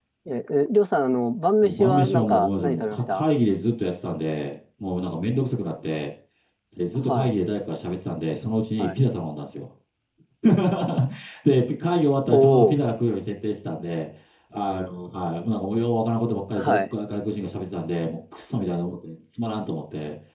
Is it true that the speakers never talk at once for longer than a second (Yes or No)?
No